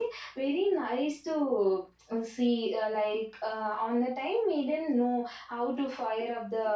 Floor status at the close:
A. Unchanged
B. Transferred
A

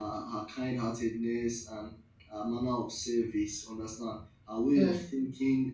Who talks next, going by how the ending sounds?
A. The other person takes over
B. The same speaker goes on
B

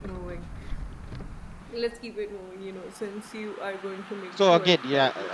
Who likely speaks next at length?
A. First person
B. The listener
B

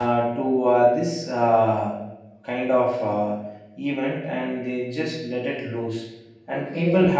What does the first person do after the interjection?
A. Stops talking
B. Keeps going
B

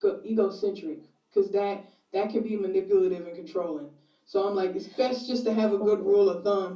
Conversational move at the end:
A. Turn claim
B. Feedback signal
B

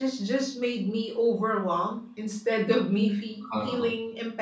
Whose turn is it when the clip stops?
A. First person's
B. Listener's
A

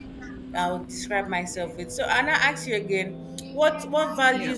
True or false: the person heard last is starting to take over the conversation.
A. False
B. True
A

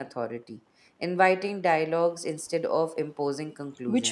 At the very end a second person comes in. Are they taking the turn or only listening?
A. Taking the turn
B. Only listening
A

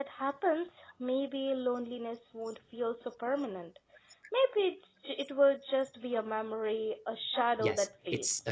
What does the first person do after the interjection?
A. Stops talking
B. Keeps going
A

